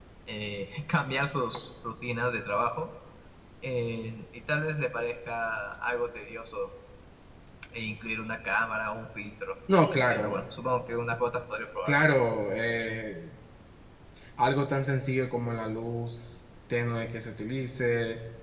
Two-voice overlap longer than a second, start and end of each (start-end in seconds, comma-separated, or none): none